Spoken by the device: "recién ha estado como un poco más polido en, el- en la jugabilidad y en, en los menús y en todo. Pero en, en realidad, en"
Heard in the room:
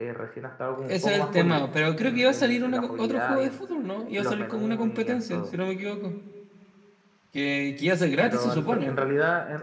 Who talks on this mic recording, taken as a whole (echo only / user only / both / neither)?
both